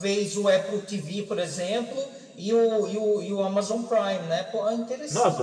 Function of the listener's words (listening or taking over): taking over